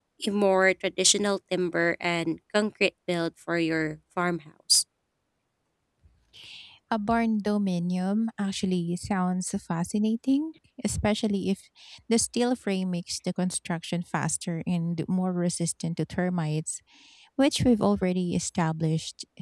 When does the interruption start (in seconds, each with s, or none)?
none